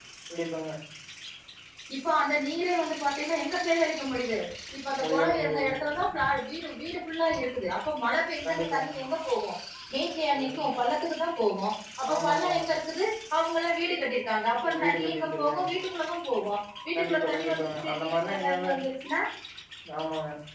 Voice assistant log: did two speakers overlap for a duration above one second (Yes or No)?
Yes